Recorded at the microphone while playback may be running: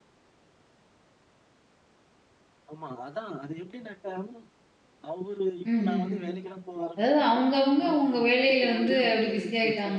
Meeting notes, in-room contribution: present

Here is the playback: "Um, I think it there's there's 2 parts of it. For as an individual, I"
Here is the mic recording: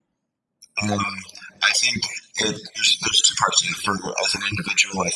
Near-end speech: none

